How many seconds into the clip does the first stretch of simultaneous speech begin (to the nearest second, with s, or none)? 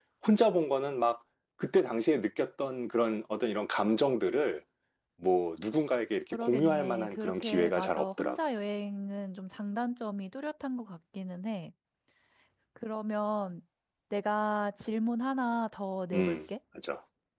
6 s